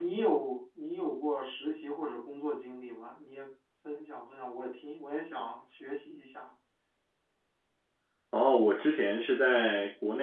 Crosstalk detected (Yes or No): No